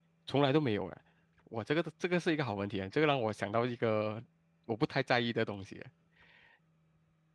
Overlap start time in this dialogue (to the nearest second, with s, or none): none